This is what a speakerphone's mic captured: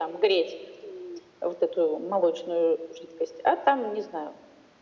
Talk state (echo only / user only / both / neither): echo only